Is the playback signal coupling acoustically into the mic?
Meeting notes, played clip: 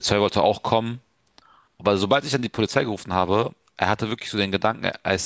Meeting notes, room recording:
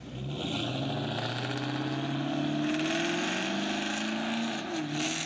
No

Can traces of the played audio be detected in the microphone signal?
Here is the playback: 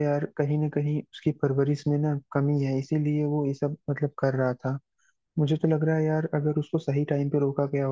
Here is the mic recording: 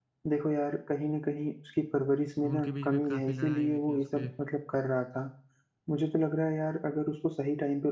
Yes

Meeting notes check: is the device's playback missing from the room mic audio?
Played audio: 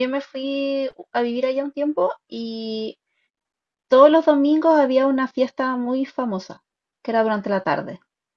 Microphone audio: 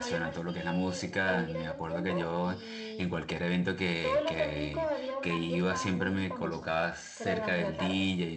No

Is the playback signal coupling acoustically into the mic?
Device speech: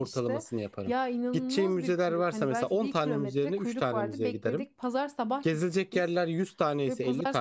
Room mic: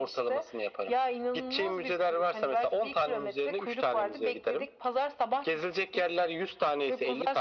Yes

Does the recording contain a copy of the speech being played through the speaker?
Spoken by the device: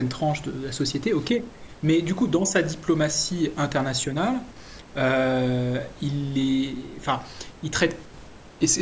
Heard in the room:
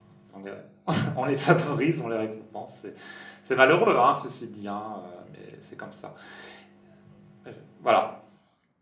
No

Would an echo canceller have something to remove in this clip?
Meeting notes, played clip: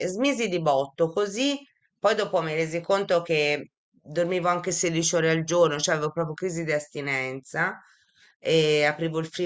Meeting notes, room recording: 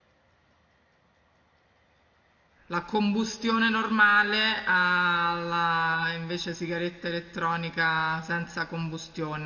No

